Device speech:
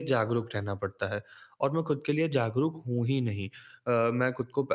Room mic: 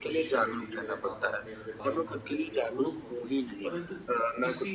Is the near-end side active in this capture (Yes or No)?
Yes